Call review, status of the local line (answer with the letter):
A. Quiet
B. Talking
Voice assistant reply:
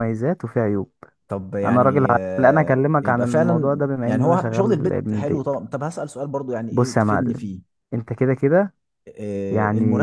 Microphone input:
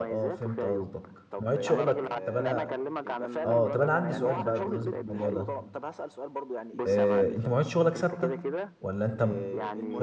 B